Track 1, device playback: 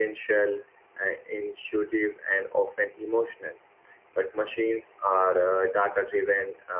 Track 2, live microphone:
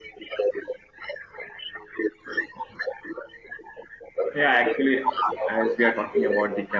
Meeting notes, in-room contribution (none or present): present